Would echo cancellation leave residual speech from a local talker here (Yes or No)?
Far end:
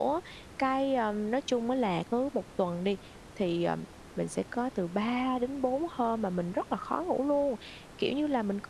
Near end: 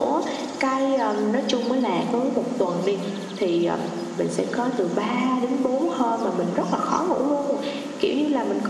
No